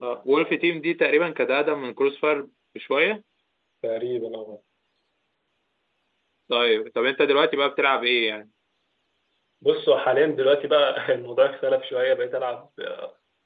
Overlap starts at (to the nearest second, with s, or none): none